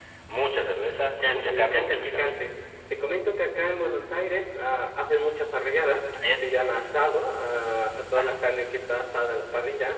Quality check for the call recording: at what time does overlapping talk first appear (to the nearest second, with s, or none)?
1 s